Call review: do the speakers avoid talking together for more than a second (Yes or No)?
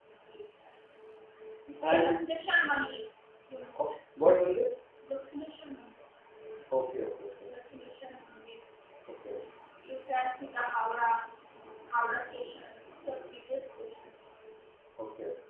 Yes